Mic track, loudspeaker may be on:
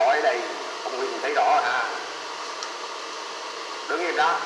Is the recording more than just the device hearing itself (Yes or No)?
No